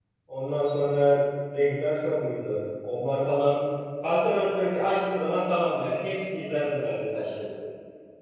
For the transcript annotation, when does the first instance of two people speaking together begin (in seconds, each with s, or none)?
none